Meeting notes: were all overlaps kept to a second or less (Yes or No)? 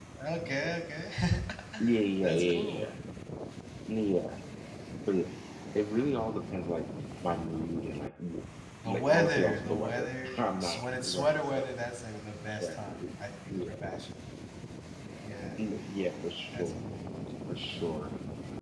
No